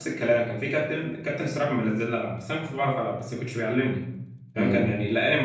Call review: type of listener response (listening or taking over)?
listening